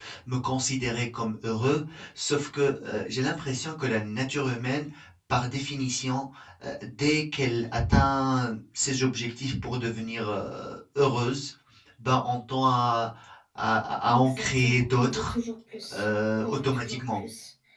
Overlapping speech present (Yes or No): Yes